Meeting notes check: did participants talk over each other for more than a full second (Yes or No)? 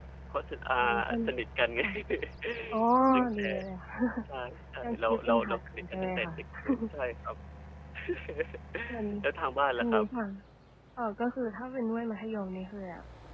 Yes